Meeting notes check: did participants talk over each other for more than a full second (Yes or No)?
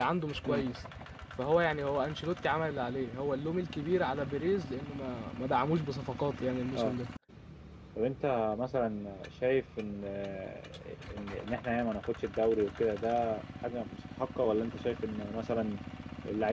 No